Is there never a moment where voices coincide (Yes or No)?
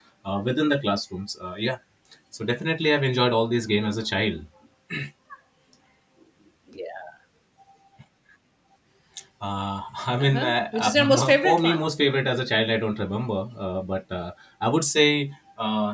No